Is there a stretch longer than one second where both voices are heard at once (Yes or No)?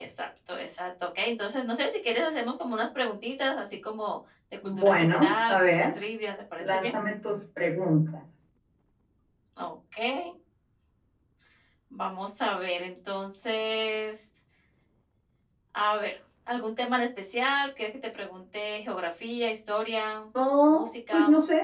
Yes